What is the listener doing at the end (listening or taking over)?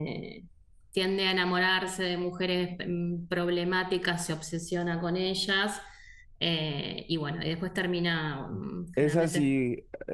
taking over